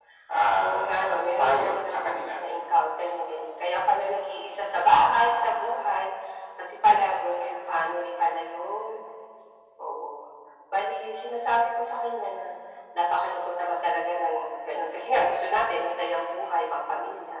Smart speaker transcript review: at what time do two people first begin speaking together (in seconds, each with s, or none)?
0.6 s